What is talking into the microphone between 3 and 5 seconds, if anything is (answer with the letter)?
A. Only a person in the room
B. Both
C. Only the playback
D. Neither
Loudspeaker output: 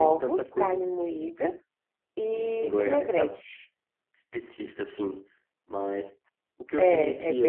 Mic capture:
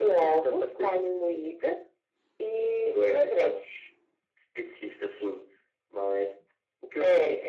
C